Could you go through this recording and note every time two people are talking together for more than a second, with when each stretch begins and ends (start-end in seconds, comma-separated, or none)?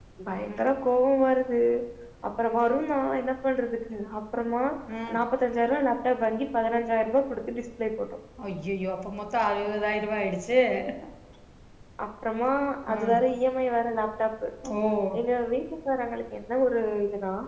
none